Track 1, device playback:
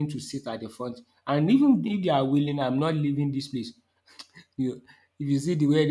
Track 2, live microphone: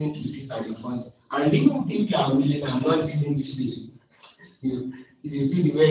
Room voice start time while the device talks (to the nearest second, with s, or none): none